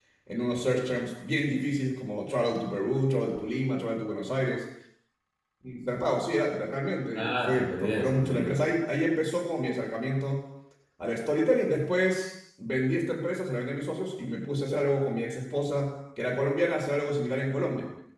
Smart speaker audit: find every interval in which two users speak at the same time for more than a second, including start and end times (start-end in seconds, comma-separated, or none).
7.2-8.6